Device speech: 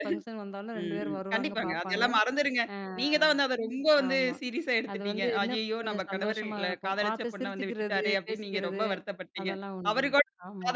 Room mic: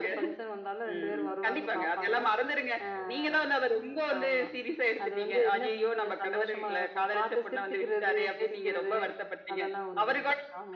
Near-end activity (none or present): none